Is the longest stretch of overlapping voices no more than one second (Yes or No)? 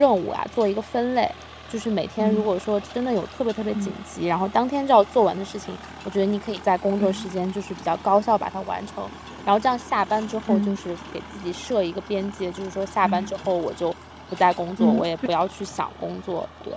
Yes